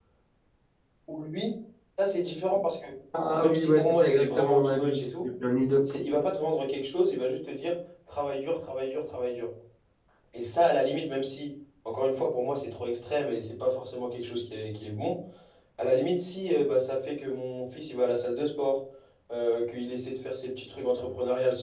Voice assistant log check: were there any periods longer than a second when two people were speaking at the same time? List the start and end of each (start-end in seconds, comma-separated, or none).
3.4-5.1